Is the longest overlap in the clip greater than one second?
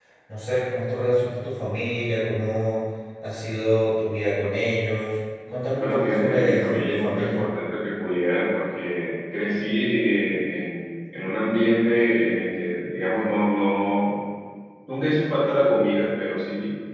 Yes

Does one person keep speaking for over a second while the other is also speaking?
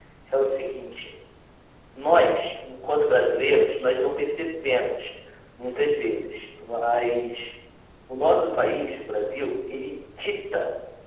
No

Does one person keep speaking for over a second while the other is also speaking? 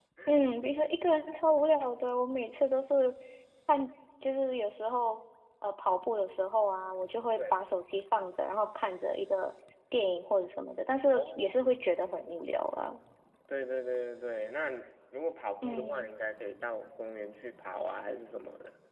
No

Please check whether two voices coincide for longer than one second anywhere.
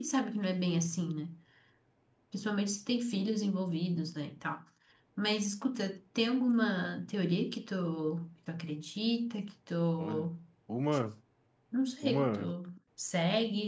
No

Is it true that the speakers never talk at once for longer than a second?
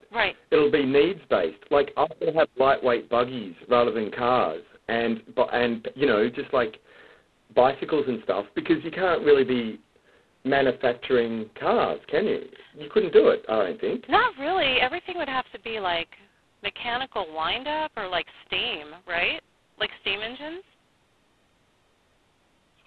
Yes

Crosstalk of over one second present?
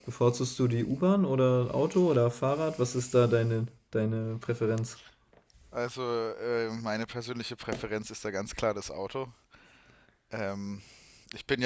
No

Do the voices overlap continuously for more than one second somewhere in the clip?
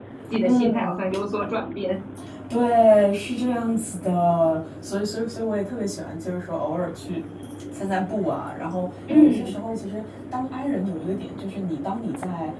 No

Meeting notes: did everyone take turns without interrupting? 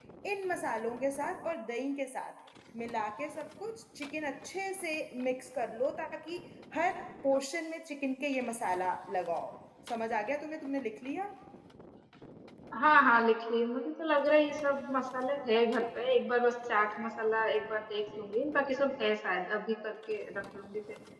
Yes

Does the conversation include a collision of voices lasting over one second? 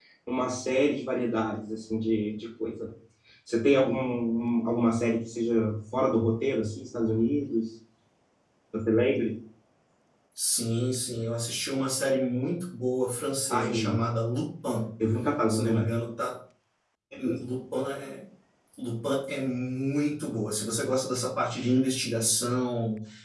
No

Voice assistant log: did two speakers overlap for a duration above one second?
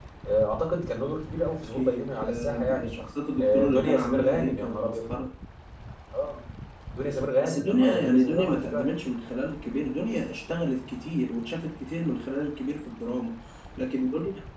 Yes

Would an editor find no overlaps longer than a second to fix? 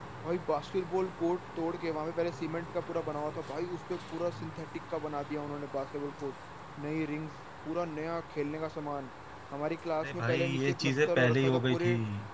No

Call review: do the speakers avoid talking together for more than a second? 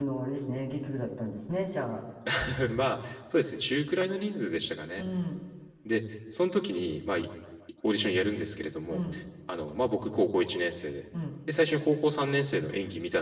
Yes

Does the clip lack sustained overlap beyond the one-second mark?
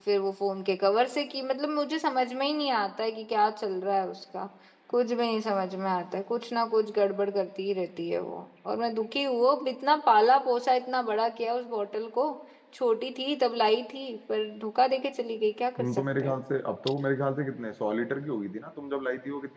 Yes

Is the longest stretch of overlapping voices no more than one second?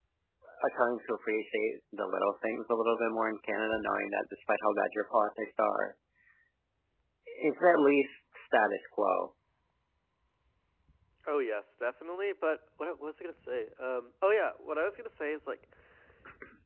Yes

